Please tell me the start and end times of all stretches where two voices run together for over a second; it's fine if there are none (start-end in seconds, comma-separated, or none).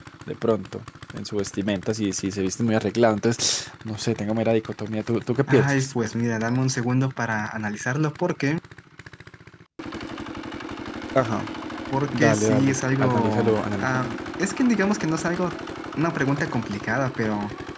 12.1-14.2